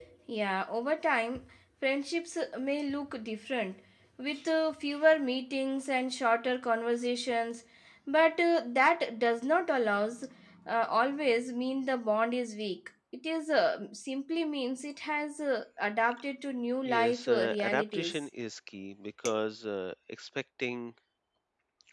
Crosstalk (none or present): present